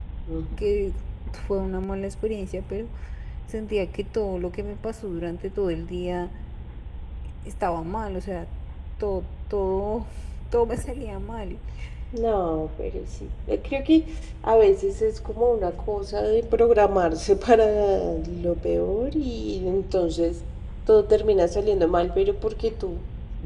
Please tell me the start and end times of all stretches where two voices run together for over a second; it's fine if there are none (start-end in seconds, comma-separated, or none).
none